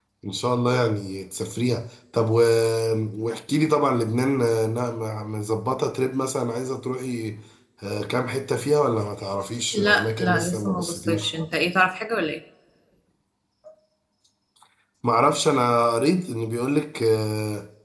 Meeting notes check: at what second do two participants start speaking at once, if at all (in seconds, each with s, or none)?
9.7 s